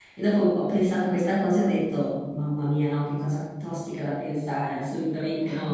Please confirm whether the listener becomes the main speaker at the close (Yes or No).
No